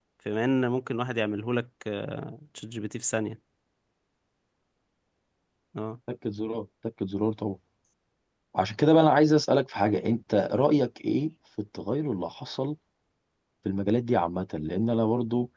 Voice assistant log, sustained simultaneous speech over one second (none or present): none